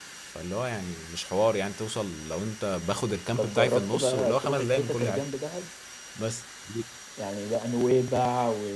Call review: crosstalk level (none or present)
present